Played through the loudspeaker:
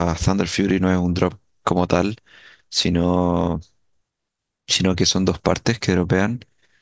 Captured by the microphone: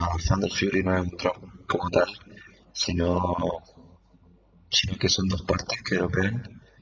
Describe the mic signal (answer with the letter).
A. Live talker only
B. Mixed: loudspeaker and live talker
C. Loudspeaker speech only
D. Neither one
C